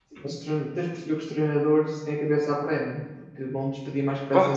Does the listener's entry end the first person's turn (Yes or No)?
No